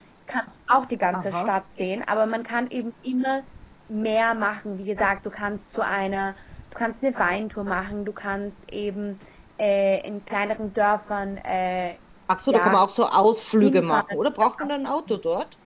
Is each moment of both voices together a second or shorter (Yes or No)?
Yes